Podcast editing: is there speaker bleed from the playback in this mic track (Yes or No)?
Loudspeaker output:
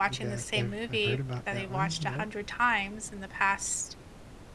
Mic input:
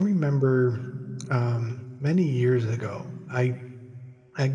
No